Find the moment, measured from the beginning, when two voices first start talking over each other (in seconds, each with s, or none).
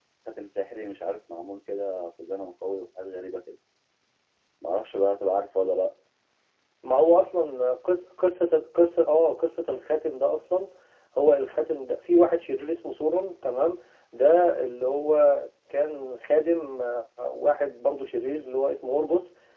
none